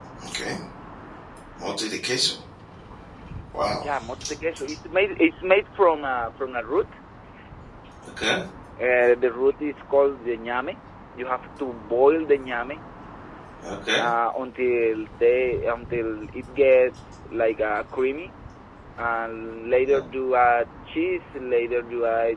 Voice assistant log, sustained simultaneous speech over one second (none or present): none